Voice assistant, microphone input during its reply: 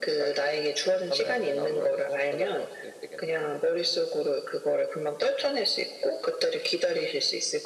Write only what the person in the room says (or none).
none